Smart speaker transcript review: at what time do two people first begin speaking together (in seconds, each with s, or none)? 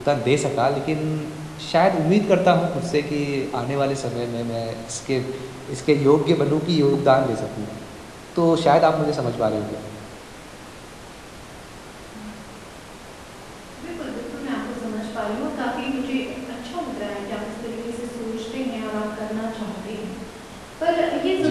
none